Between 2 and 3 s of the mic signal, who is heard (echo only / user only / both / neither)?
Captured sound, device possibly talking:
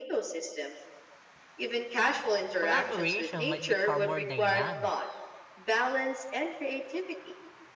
both